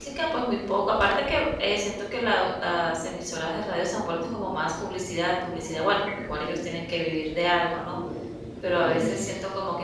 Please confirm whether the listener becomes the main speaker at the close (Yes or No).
No